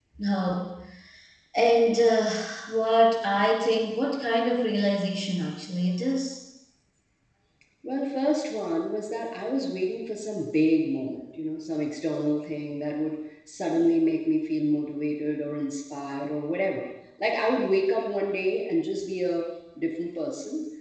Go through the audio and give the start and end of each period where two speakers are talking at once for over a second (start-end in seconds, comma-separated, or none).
none